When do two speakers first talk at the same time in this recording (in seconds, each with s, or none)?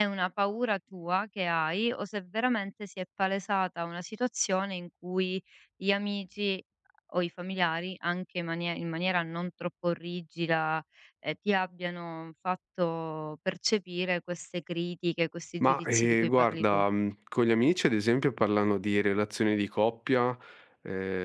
15.6 s